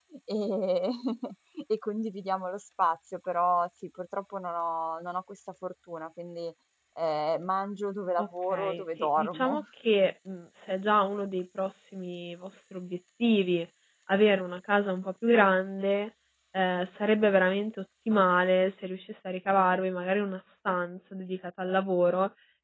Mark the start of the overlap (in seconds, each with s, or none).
8.2 s